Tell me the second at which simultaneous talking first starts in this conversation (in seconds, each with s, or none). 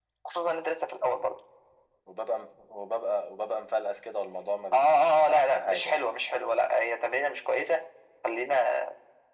4.7 s